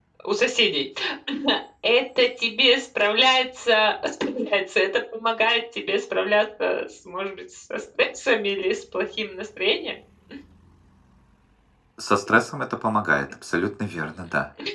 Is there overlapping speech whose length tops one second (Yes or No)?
No